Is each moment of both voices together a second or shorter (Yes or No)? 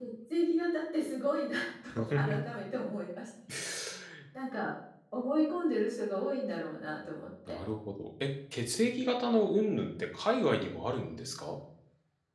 Yes